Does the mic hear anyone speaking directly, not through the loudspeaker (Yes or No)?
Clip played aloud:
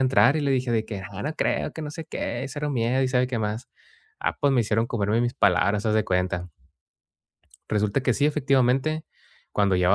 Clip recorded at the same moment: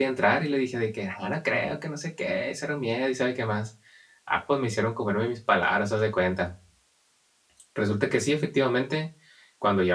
No